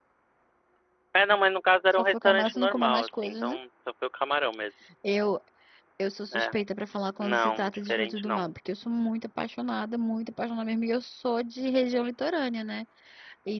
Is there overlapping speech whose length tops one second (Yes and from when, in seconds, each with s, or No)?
Yes, from 2.0 s